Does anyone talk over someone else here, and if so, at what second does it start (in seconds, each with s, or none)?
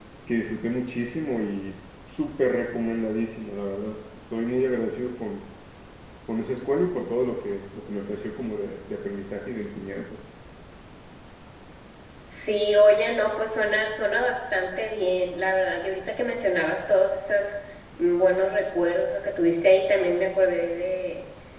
none